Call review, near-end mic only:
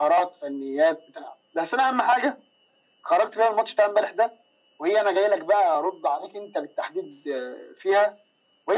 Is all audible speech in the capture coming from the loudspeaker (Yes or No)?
Yes